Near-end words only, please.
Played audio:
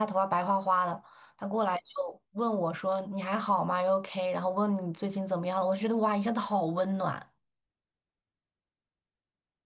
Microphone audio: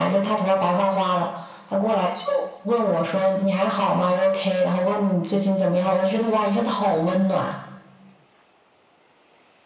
none

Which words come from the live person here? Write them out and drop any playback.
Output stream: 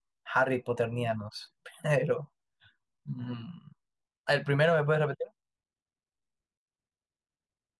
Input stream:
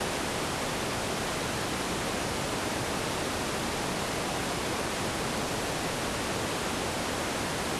none

